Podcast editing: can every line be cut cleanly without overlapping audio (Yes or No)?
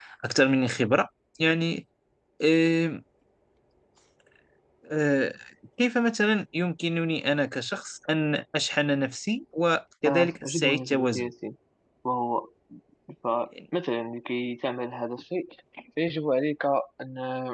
No